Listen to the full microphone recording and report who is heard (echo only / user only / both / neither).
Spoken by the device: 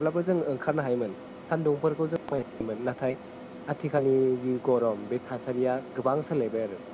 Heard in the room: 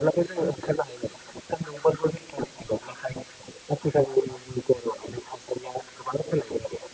echo only